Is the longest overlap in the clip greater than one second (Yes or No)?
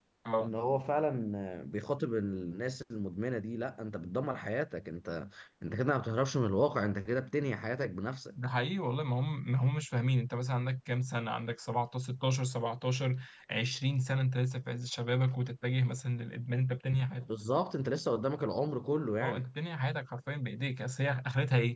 No